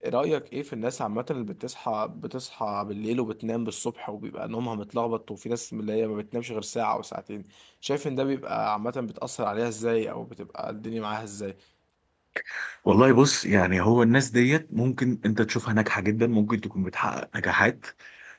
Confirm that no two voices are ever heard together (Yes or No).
Yes